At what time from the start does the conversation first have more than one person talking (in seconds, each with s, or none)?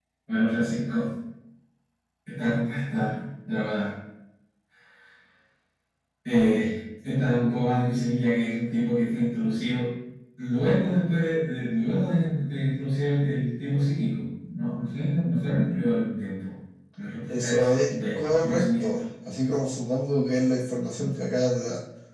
17.3 s